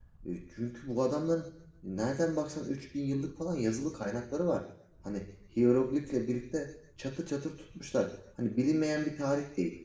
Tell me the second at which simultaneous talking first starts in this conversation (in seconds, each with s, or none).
none